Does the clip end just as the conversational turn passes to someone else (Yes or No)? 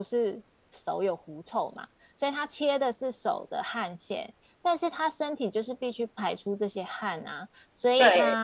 No